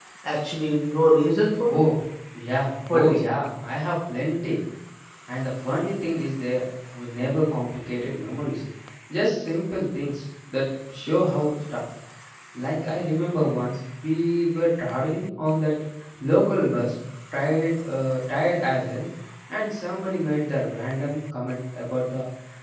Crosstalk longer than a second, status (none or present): none